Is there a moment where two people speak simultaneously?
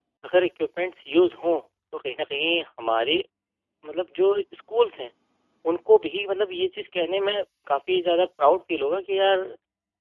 No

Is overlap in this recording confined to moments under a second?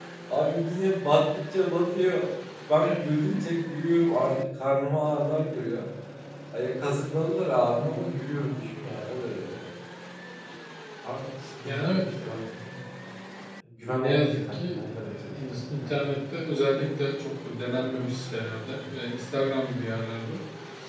No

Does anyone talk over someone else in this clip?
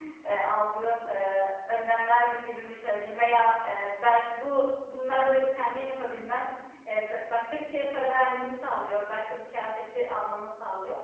No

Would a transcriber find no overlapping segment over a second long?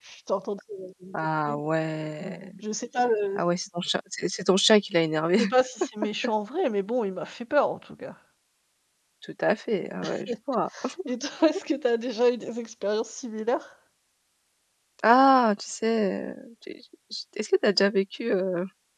Yes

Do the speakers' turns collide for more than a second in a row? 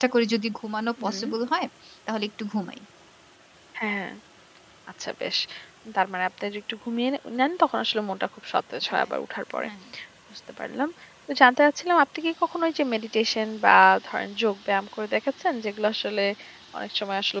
No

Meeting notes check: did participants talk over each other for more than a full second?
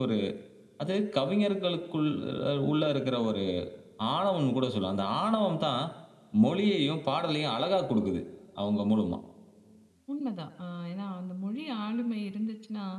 No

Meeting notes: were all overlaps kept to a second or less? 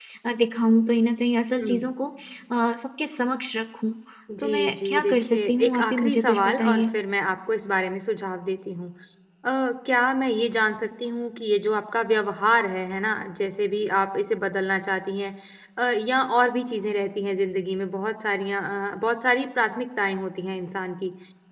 No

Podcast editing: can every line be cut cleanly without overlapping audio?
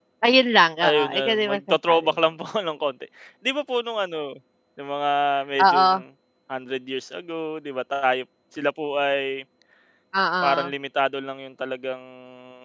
No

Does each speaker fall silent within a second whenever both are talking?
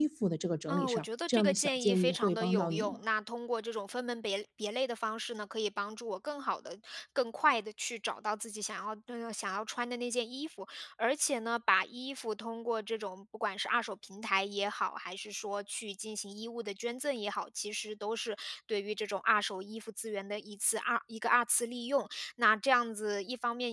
No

